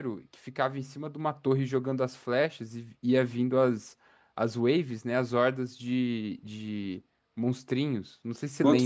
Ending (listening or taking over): taking over